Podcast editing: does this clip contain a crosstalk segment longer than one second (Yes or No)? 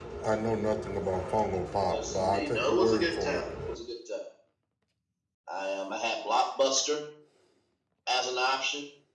Yes